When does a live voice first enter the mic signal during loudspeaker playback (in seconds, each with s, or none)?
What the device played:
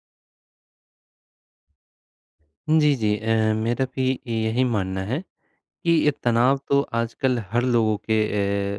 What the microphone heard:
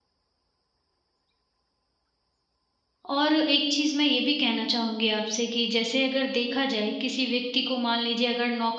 3.1 s